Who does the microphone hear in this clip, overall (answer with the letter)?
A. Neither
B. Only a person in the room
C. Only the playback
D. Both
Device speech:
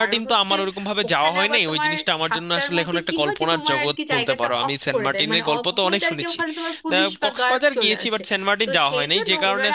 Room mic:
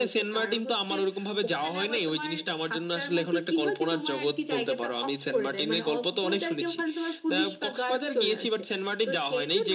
C